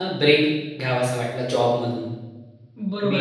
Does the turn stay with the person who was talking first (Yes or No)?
No